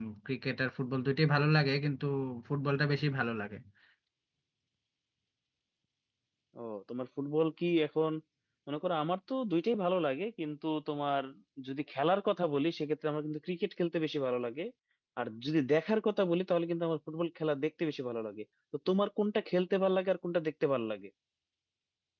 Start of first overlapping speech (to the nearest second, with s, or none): none